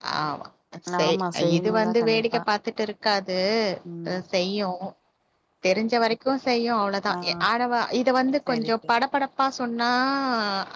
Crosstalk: present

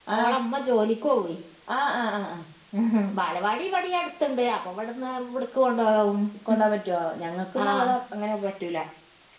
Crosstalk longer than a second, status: none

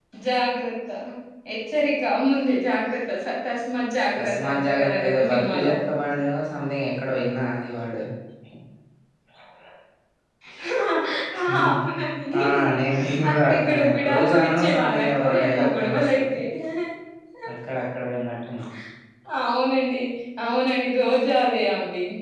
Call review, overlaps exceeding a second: present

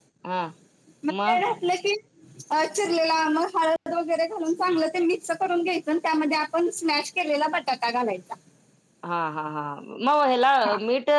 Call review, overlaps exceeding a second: none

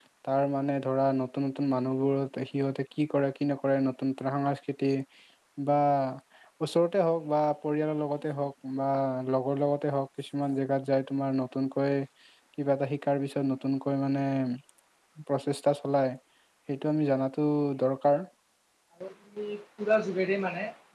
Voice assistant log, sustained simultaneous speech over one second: none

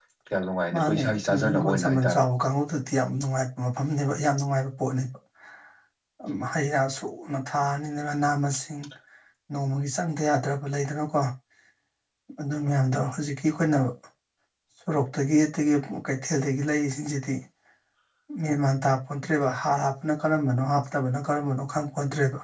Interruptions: present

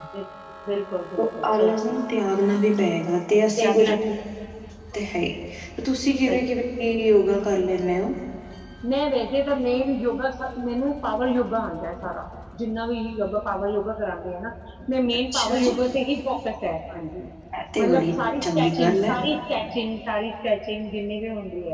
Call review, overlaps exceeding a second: present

